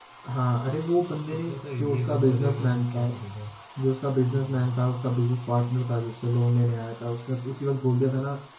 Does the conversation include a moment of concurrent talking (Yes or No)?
Yes